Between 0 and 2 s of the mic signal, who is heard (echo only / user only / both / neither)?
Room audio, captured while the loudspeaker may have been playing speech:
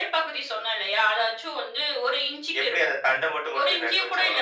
echo only